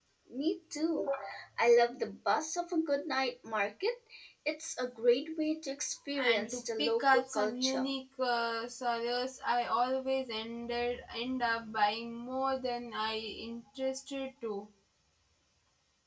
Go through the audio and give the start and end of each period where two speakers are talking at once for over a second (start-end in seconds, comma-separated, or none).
6.2-7.9